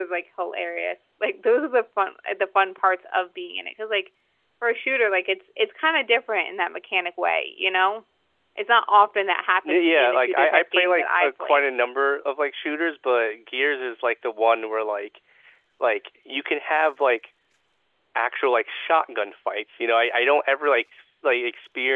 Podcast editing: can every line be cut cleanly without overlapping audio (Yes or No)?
No